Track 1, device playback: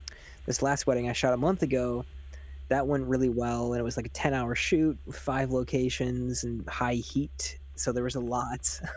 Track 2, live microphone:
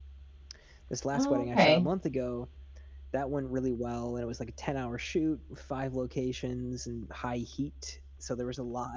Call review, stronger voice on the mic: user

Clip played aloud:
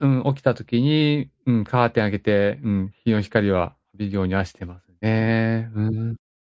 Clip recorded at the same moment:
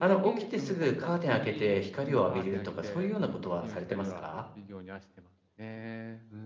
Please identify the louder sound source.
user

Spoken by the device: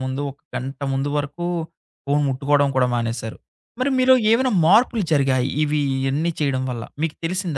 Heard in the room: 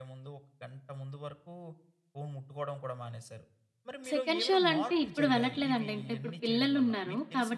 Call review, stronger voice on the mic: user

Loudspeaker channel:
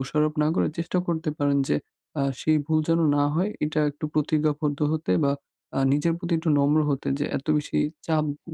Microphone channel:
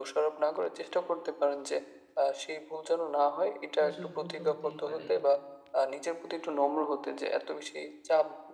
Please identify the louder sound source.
echo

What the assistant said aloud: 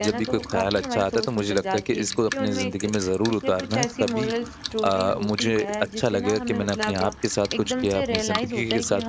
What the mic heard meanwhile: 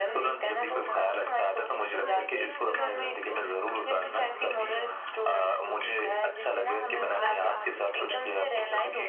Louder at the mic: echo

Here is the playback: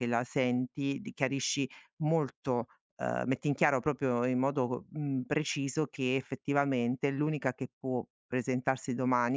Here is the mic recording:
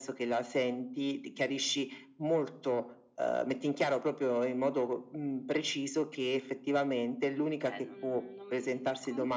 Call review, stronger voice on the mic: echo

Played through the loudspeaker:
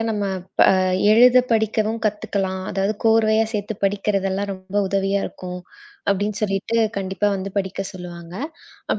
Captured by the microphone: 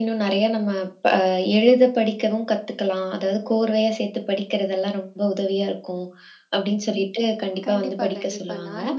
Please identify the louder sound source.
echo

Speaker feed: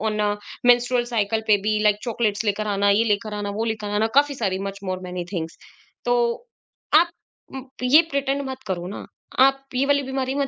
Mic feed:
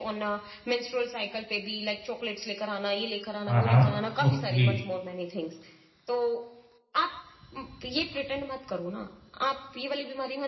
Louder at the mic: user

